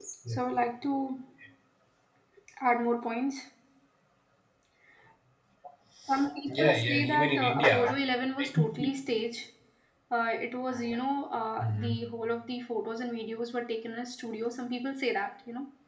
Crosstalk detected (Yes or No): Yes